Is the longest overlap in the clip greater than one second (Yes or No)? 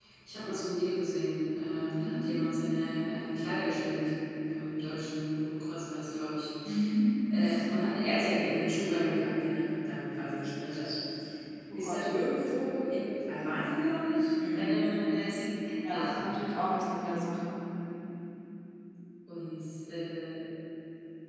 No